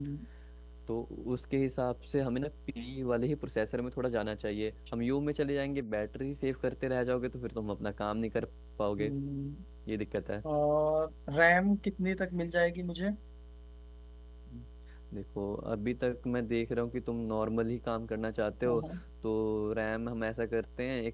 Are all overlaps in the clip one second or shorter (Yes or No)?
Yes